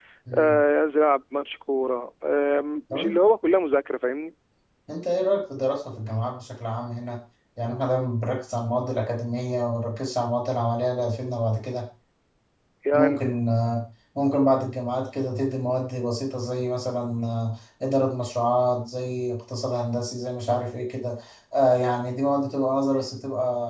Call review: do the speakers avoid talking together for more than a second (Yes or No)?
Yes